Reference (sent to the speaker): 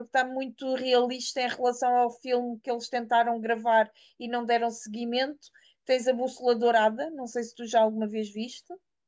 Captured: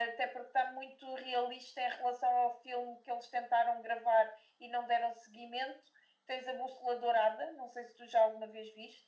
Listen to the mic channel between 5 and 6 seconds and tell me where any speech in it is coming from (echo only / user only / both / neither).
echo only